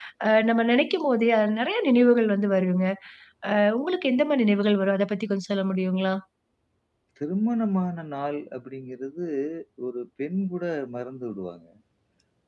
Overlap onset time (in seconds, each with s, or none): none